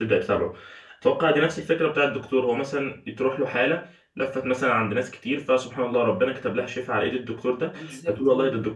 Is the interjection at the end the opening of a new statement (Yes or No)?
No